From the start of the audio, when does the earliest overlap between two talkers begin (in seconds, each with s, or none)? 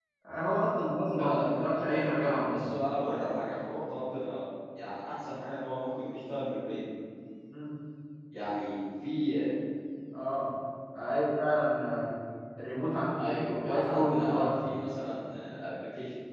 1.2 s